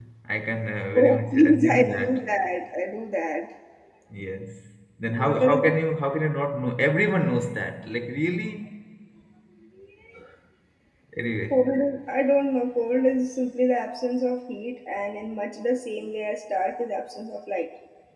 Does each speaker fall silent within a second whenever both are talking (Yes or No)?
No